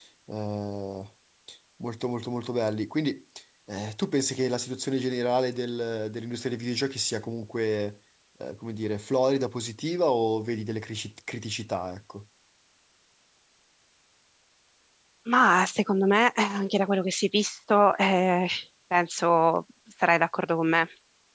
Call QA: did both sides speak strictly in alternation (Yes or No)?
Yes